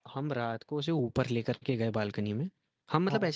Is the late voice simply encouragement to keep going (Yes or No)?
Yes